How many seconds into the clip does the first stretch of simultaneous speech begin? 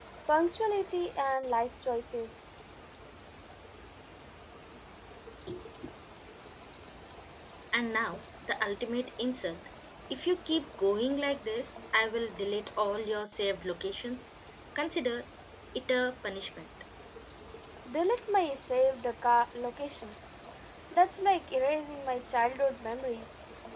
none

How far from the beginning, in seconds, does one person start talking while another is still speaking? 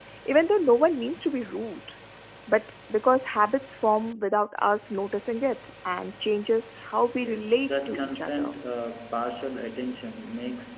7.2 s

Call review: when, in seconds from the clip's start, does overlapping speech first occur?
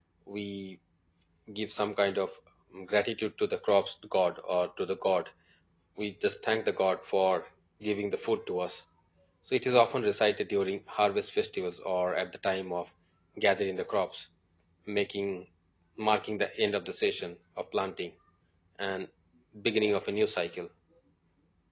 none

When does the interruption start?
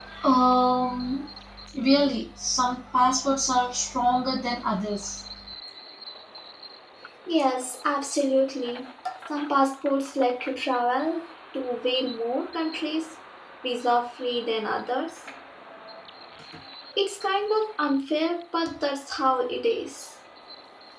none

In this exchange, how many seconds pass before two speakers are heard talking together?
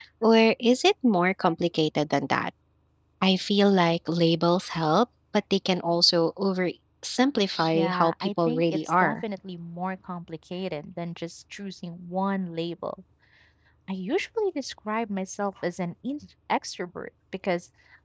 7.7 s

